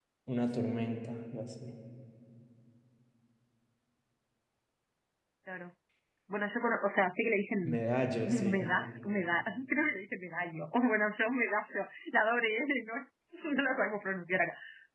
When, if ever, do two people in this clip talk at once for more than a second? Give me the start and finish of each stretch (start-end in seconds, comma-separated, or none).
none